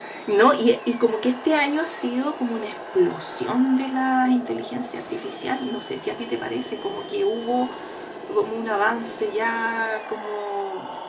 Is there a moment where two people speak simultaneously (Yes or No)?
No